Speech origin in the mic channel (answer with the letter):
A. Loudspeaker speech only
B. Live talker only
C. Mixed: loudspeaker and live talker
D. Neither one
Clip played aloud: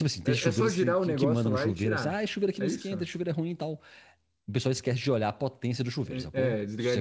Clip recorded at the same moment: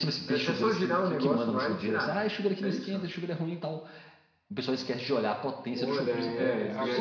C